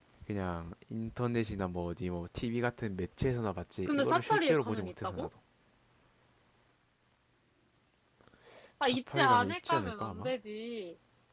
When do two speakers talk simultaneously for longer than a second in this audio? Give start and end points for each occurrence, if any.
3.9-5.3, 8.9-10.3

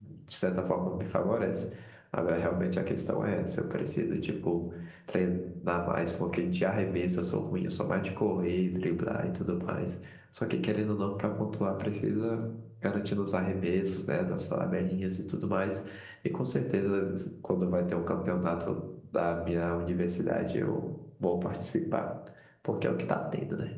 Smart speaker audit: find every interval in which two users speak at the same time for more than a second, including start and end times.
none

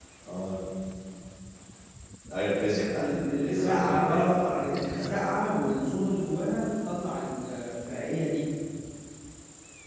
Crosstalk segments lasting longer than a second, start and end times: 3.0-5.3

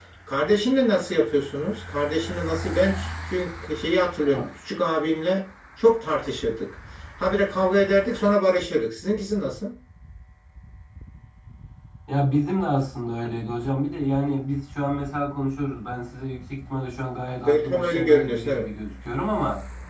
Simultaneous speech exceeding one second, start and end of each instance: 17.4-18.7

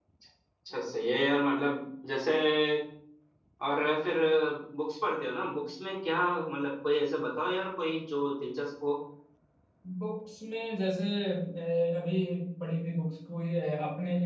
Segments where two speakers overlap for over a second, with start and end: none

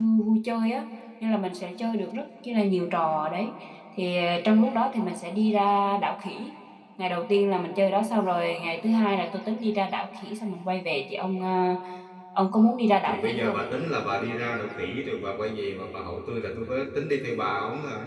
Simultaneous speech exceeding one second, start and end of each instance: none

